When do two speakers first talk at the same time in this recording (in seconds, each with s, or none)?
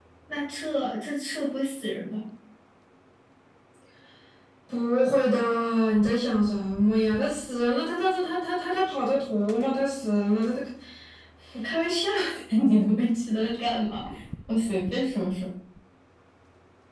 none